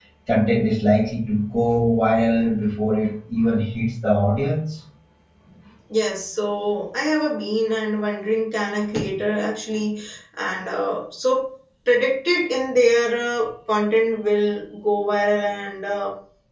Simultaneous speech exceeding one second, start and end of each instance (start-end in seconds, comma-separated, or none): none